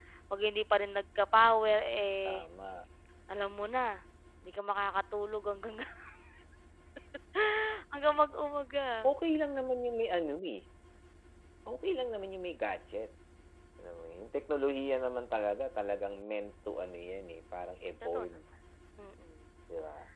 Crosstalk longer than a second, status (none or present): none